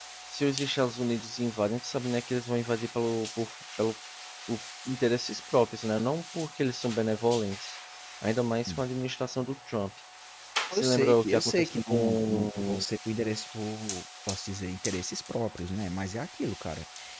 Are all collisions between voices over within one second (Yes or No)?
No